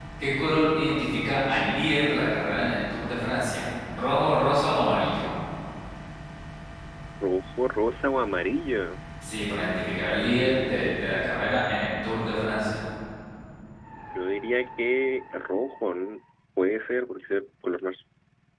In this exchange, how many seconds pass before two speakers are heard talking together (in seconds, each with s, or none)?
none